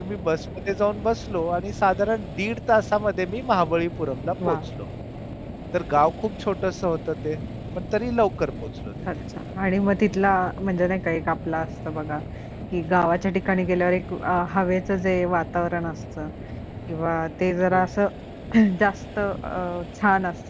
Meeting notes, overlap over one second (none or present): none